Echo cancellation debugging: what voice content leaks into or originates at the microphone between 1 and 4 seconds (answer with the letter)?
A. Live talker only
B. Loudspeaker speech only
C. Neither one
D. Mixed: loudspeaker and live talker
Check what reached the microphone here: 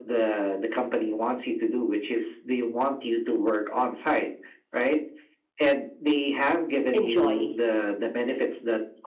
B